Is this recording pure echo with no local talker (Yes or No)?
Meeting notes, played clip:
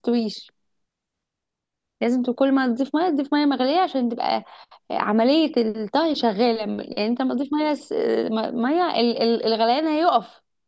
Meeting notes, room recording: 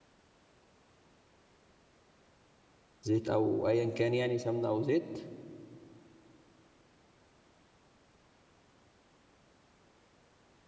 No